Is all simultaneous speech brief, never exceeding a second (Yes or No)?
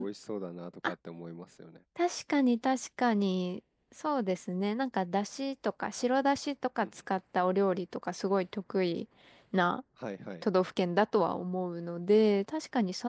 Yes